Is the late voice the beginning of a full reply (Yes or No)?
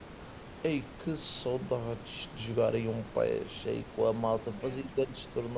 No